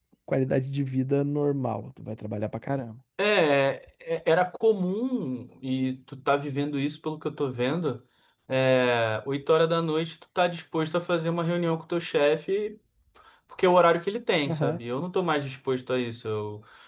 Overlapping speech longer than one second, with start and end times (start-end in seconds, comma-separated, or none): none